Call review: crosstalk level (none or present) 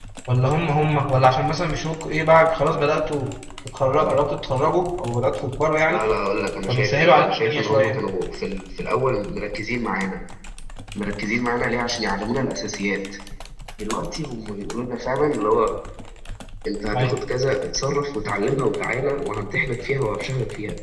present